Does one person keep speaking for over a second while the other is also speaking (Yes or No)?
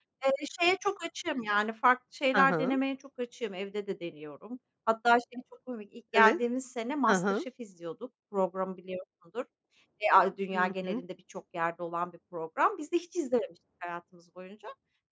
No